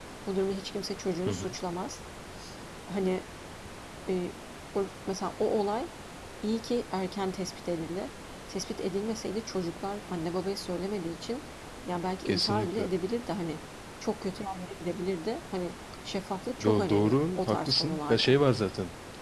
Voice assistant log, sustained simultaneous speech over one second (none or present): present